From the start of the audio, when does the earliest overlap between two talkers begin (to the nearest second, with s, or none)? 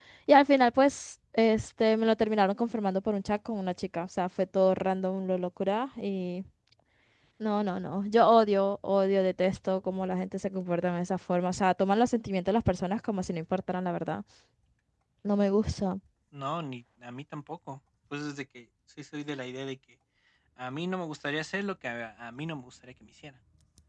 none